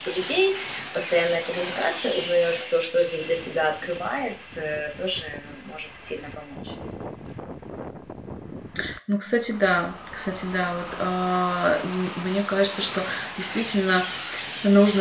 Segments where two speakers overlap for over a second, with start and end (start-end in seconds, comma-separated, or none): none